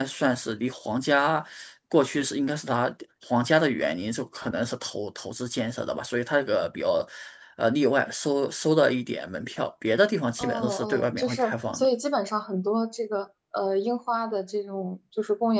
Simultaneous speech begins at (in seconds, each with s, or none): 10.4 s